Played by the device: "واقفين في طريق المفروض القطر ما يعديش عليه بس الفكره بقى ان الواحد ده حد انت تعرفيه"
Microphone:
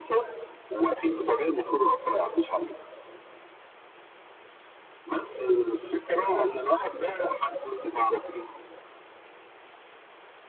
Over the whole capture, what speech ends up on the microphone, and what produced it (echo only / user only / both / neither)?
echo only